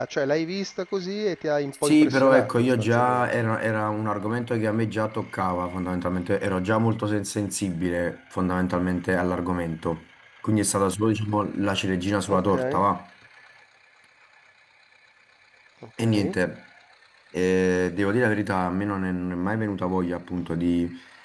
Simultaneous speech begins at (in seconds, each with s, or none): 1.8 s